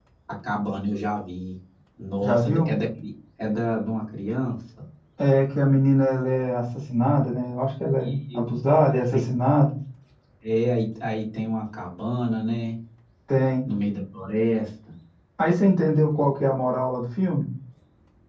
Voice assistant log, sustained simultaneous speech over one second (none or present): none